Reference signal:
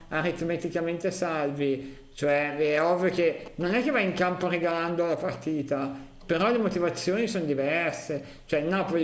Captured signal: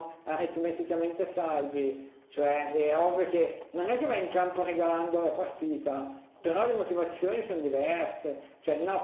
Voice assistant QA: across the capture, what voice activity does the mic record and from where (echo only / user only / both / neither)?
echo only